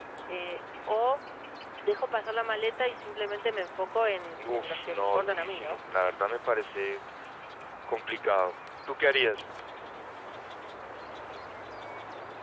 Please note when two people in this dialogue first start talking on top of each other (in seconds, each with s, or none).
4.4 s